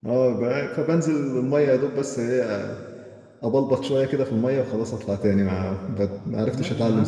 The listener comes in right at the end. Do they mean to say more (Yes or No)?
Yes